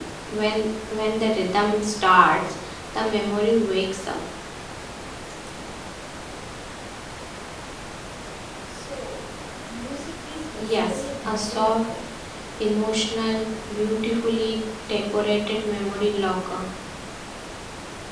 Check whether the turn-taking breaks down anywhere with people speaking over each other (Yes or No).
Yes